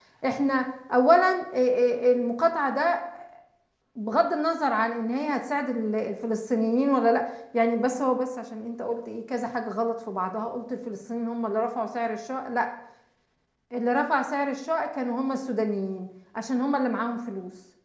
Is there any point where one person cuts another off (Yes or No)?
No